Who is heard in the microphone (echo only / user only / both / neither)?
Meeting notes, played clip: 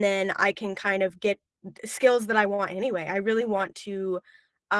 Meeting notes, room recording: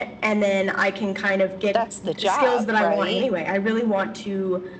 both